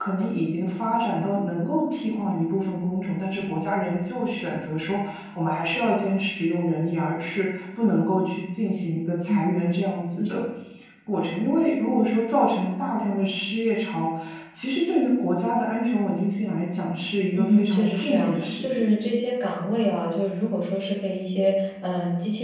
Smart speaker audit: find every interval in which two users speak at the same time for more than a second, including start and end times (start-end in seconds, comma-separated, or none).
17.3-18.7